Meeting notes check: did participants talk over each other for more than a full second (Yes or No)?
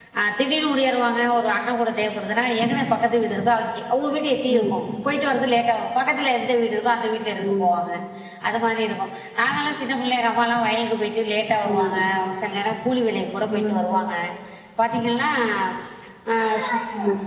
No